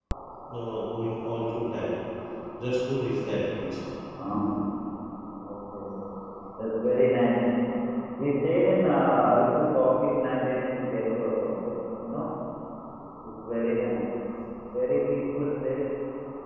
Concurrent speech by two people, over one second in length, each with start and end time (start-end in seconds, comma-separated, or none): none